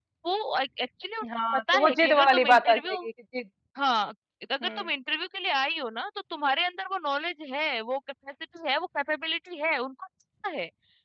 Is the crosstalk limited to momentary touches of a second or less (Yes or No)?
No